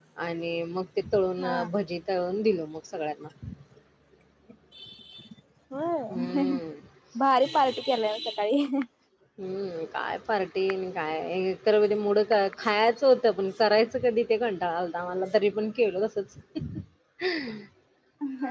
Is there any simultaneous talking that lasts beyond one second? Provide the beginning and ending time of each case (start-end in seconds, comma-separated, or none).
none